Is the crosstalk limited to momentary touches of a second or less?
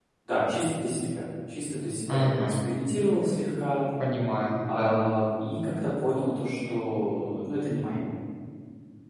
Yes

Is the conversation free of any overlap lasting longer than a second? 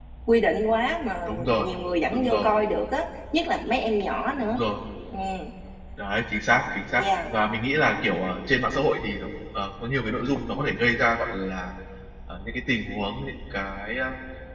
Yes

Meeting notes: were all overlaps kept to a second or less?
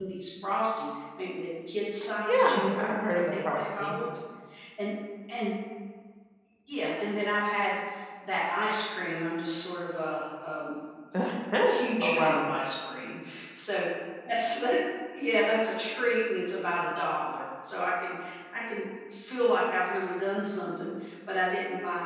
No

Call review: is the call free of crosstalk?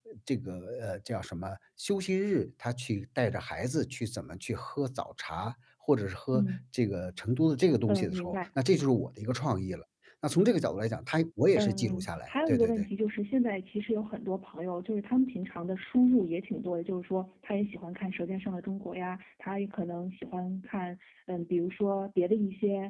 No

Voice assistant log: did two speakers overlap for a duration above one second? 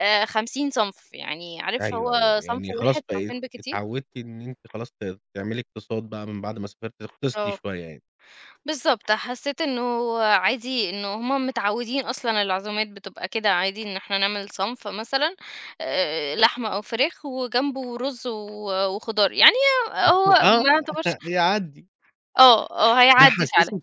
Yes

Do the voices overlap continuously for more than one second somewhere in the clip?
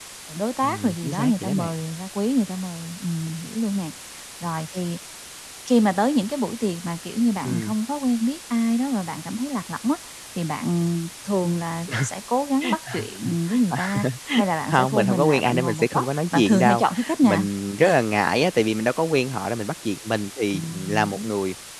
Yes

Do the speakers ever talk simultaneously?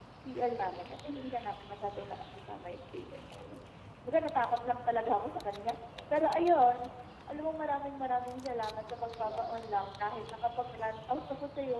Yes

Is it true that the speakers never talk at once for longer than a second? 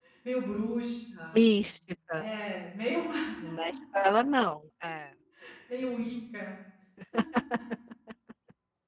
Yes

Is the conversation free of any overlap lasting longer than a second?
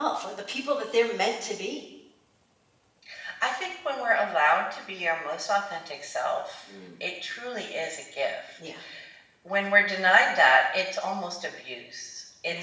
Yes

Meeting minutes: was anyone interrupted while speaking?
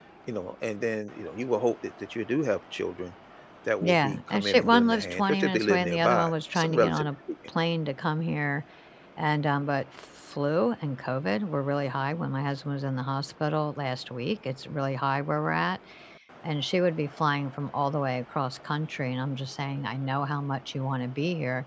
Yes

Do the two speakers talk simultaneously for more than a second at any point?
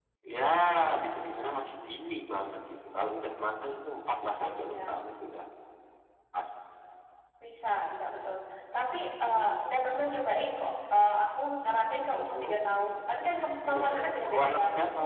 Yes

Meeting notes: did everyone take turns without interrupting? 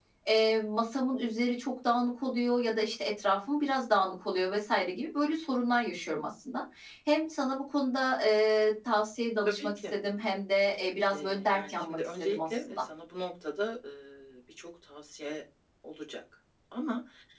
No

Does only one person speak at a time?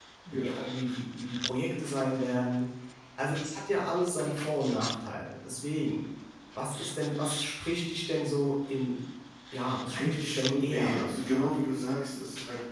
No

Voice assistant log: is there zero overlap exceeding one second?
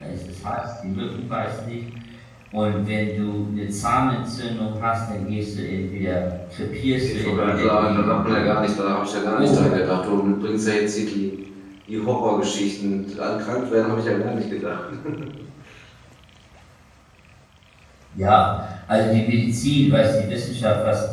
No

